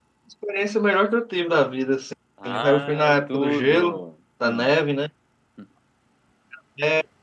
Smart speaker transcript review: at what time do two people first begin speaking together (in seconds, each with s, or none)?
2.4 s